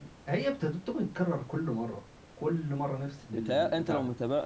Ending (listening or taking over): taking over